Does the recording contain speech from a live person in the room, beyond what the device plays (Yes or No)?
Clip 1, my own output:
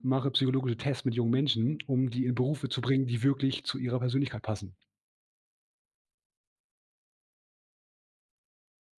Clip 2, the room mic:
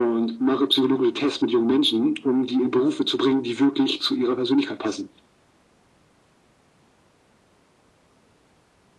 No